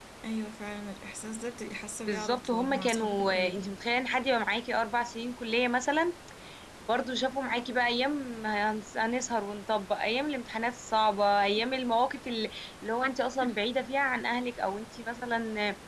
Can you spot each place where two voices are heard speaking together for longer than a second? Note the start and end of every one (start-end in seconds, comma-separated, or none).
2.1-3.7